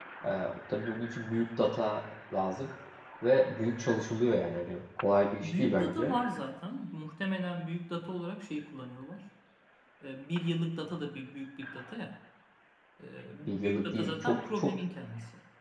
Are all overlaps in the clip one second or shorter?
No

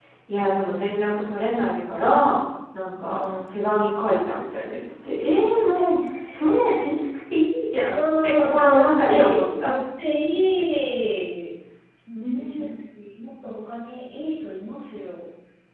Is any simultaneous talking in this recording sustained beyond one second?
Yes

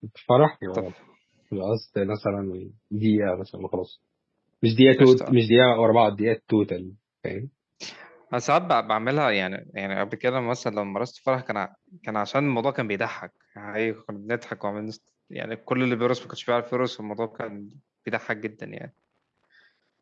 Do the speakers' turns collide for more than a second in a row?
No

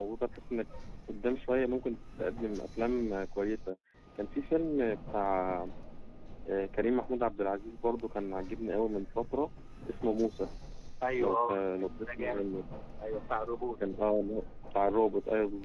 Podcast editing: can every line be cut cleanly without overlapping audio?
No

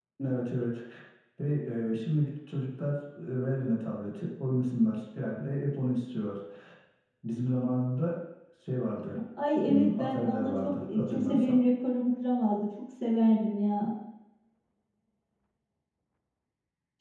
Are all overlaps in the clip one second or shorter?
No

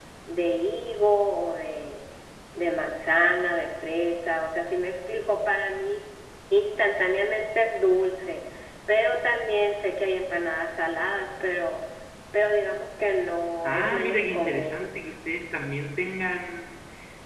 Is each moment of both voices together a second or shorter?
No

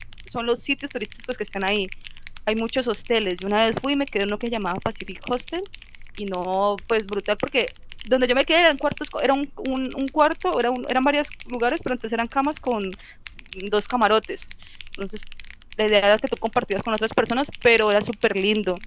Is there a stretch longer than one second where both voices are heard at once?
No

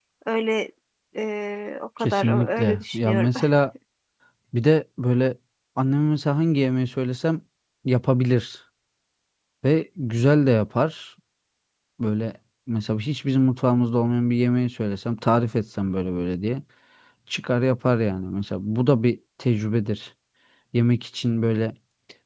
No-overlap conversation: No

